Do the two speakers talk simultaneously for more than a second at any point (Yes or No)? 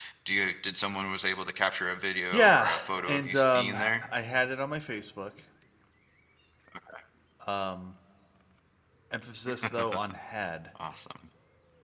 Yes